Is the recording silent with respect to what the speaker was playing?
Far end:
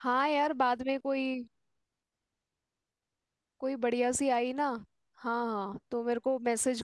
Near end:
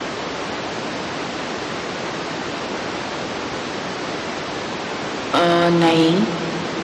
Yes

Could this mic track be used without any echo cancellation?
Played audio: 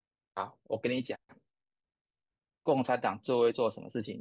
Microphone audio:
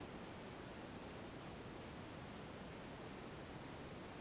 Yes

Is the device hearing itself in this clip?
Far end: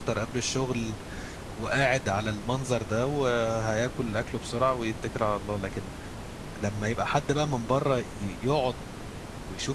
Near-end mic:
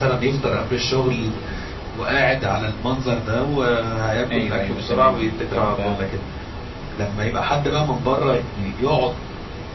Yes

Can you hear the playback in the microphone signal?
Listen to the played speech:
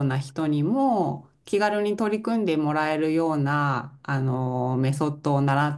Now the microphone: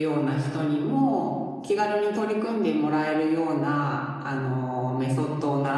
Yes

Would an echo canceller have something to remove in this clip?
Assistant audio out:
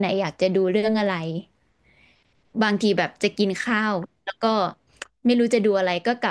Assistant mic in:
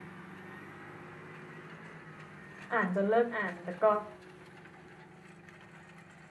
No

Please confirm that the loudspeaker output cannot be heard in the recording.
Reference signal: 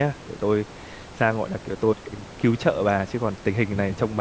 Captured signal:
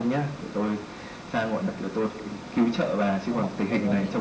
No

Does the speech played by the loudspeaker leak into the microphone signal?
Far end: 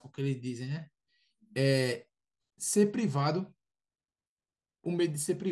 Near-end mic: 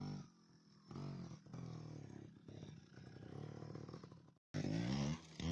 No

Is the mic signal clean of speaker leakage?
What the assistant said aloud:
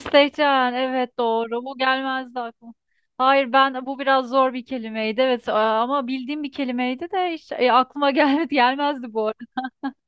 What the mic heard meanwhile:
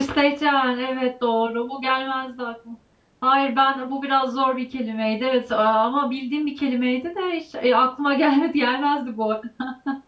No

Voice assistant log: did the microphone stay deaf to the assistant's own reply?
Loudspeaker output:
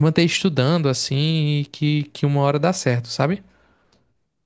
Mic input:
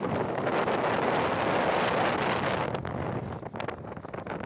Yes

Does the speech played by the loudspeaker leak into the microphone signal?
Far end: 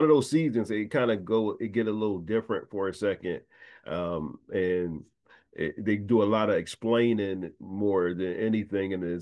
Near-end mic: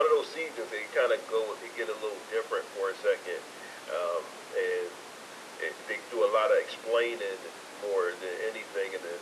Yes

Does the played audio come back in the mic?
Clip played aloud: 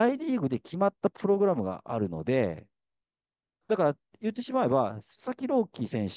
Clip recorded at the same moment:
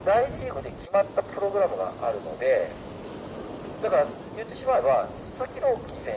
Yes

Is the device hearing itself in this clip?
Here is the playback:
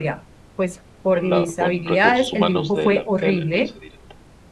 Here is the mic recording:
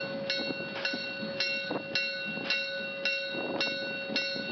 No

